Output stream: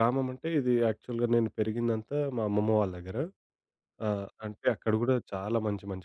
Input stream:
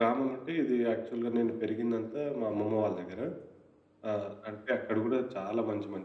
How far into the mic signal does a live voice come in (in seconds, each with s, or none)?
none